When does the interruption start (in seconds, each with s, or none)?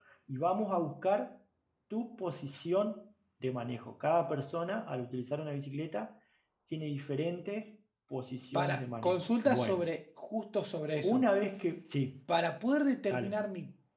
8.5 s